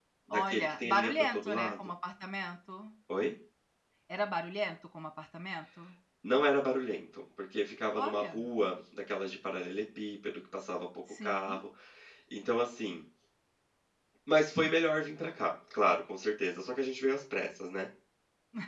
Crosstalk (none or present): present